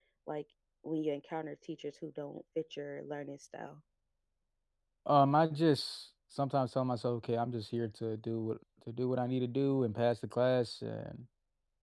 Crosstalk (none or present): none